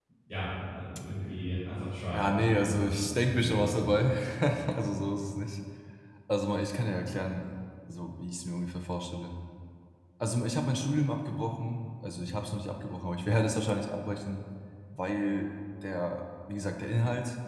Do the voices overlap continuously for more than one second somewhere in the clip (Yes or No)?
Yes